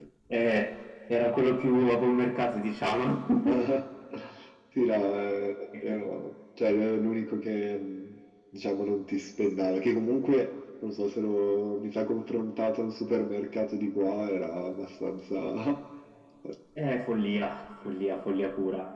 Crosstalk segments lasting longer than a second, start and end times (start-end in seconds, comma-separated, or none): none